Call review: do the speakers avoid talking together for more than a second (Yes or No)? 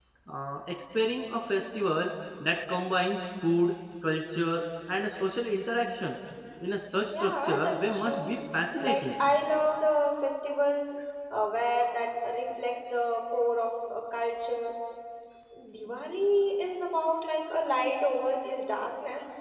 No